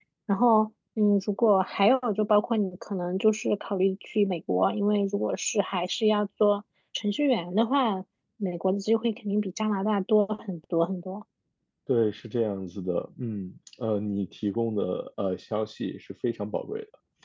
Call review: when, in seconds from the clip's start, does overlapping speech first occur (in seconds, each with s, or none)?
none